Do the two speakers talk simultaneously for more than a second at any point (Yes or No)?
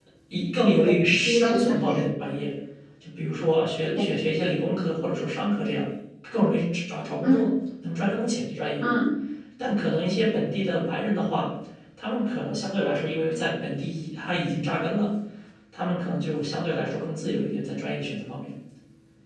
Yes